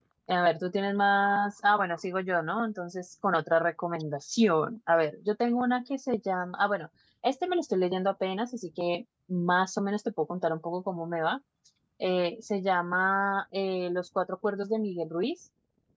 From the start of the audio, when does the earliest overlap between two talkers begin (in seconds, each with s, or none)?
none